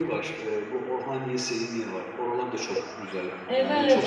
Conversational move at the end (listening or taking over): taking over